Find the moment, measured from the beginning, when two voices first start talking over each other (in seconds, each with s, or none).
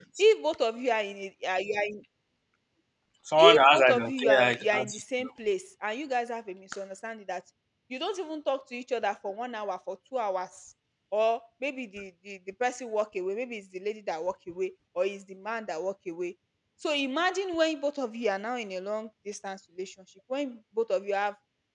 3.4 s